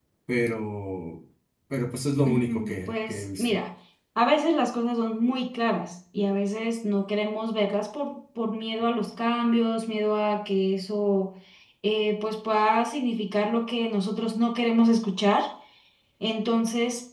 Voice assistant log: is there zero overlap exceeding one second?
No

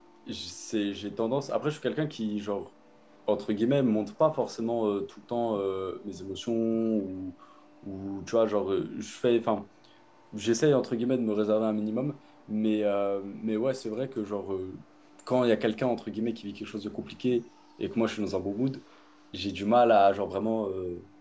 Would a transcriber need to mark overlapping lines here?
No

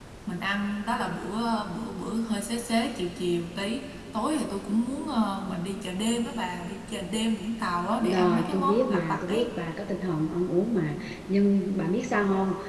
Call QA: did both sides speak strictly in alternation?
No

